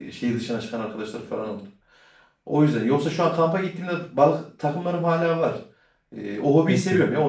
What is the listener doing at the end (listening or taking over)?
listening